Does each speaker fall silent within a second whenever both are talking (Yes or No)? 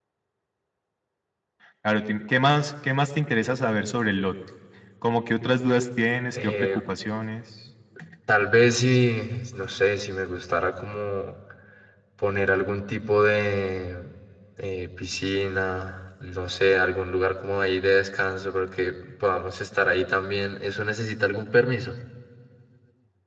Yes